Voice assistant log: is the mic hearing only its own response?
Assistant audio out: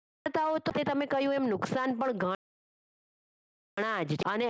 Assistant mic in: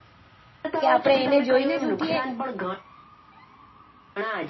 No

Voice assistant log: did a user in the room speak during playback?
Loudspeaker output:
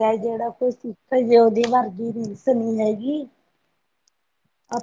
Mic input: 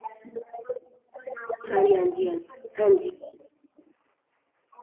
Yes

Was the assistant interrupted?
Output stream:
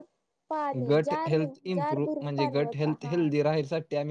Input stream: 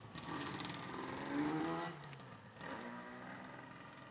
No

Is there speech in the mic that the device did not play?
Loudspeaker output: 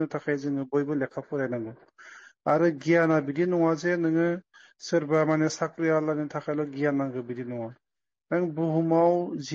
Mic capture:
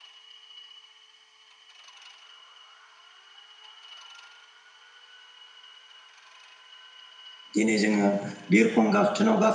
Yes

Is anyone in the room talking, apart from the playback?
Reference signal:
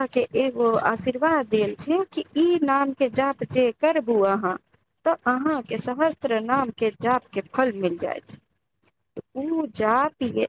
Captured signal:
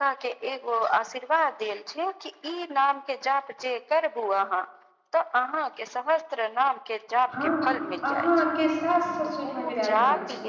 Yes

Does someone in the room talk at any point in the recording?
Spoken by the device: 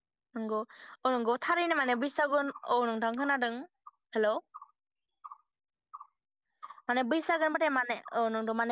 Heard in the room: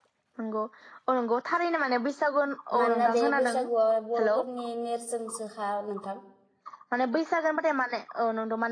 Yes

